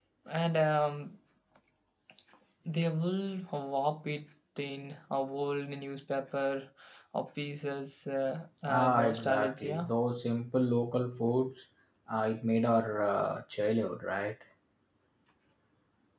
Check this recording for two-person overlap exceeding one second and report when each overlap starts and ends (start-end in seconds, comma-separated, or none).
8.7-9.9